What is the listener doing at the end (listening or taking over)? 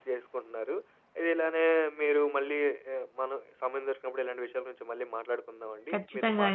listening